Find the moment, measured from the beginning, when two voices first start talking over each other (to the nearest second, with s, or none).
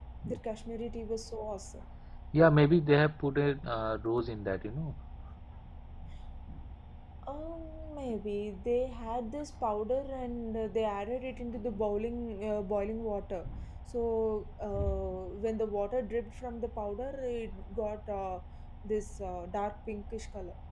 none